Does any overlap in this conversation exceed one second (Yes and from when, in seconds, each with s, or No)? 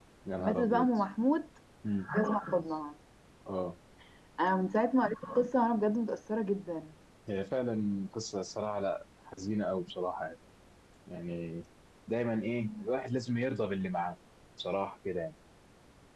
No